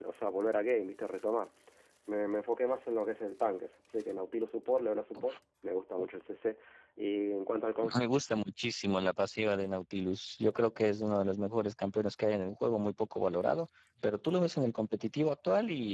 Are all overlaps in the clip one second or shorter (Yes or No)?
Yes